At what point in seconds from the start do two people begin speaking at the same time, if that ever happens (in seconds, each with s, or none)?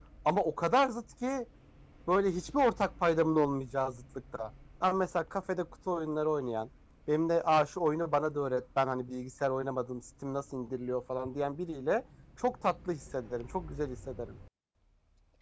none